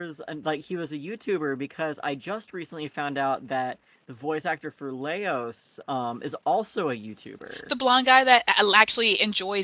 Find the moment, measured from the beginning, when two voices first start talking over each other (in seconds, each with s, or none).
none